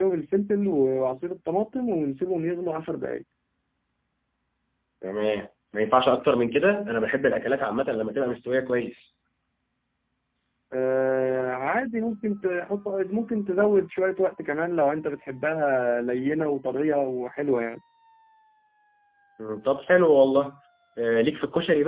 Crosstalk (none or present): none